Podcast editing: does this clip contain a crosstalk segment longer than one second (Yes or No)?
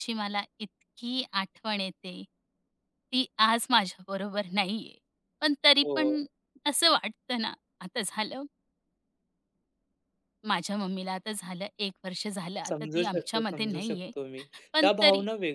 Yes